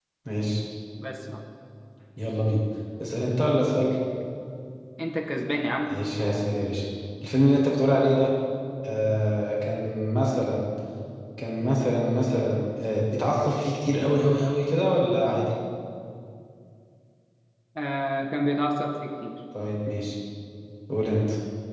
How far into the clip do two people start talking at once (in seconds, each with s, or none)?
none